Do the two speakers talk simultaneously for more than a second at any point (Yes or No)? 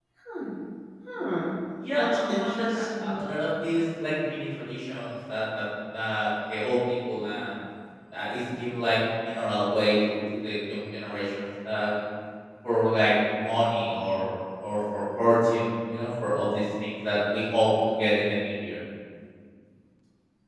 Yes